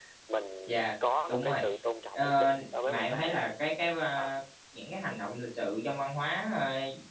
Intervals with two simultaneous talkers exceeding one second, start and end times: 2.1-3.4

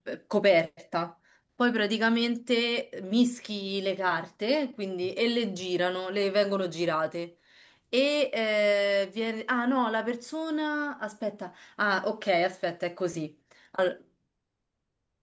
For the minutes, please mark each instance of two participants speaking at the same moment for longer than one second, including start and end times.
none

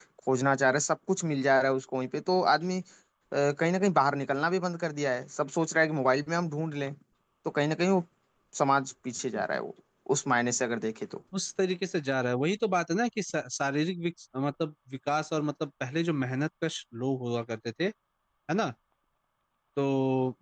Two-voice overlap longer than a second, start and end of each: none

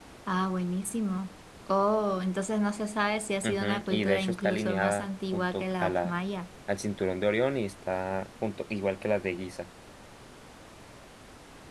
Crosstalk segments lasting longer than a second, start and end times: 3.4-6.1

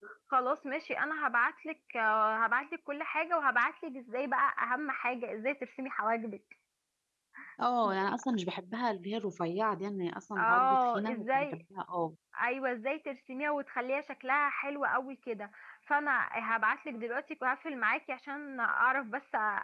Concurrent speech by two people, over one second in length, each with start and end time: 10.4-11.6

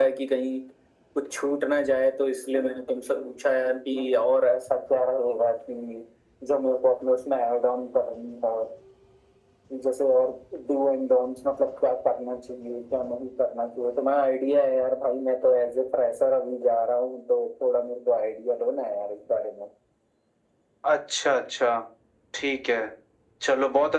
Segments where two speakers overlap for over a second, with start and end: none

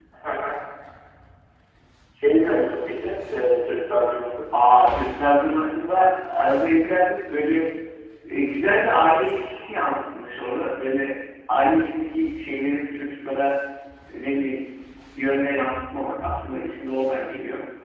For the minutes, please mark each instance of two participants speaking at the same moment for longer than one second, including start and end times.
none

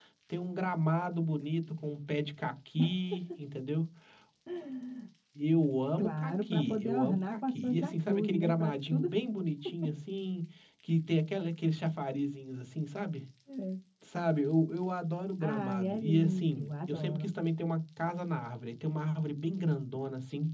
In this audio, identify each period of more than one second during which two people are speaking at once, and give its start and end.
6.0-9.1, 15.4-17.3

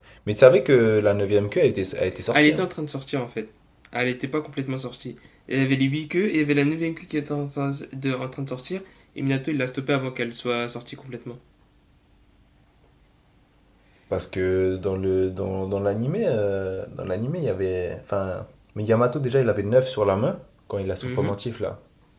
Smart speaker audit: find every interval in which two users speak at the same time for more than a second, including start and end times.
none

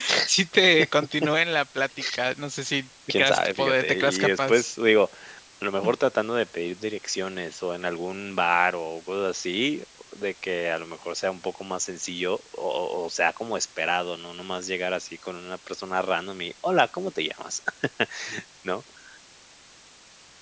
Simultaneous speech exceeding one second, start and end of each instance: 3.1-4.7

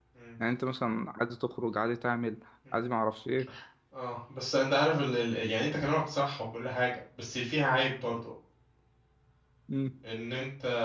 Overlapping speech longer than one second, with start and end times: none

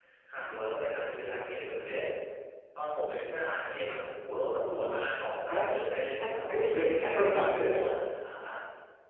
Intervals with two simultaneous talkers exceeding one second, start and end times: 6.1-7.8

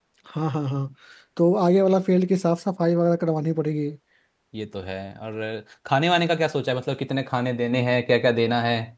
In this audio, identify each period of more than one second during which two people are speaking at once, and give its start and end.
none

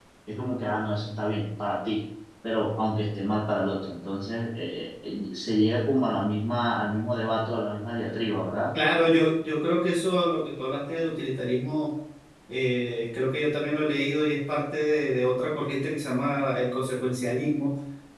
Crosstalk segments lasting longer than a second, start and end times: none

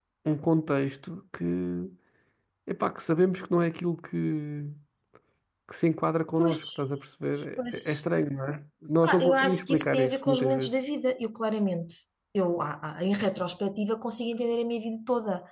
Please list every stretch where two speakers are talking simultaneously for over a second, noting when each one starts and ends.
9.0-10.7

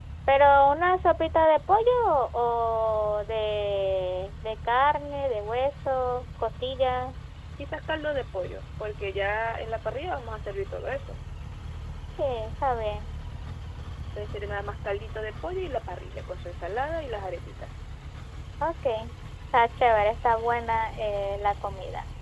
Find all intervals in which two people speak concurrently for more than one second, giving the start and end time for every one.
none

